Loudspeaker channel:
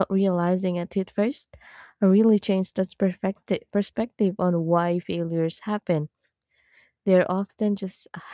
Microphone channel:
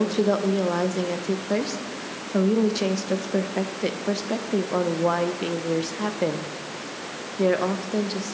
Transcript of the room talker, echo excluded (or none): none